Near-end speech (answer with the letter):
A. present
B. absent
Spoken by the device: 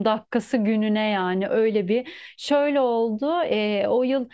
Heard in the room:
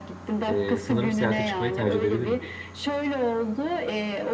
A